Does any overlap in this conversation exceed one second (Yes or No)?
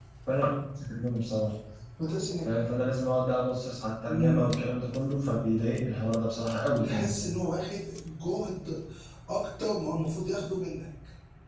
No